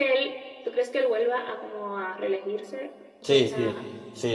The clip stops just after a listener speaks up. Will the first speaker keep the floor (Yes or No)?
No